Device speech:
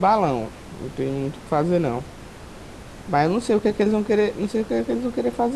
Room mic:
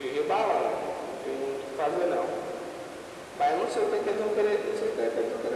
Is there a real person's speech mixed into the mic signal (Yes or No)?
No